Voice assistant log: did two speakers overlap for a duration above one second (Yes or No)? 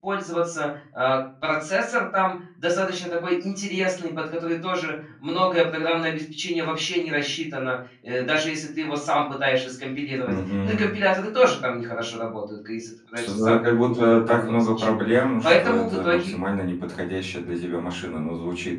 Yes